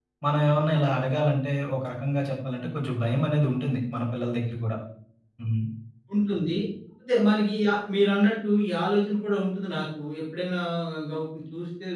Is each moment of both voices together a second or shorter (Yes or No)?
Yes